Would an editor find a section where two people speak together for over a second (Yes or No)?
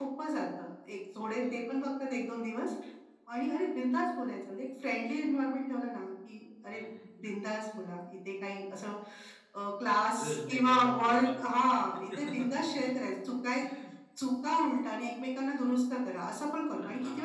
Yes